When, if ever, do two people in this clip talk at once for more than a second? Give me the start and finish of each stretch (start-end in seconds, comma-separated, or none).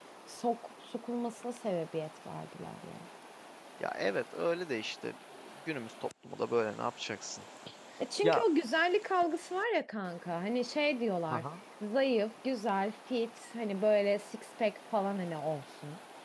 none